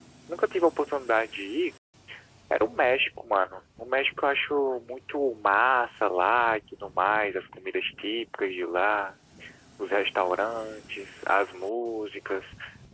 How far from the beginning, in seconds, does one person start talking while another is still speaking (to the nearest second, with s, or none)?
none